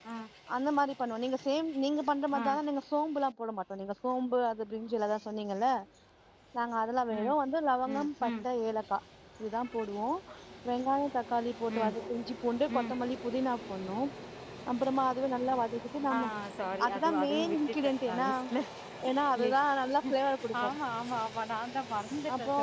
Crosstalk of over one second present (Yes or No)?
Yes